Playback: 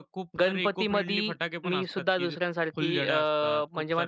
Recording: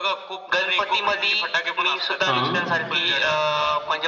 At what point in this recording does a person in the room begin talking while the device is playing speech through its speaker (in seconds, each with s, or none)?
2.3 s